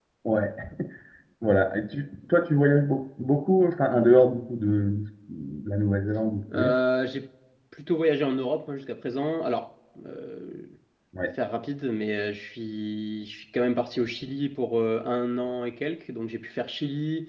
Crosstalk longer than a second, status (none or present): none